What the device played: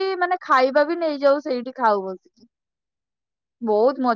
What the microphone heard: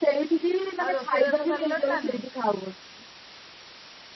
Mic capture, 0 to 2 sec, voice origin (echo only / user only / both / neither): both